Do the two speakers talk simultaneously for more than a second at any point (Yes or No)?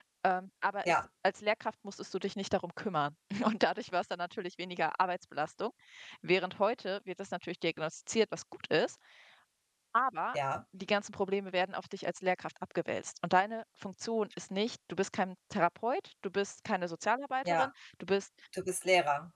No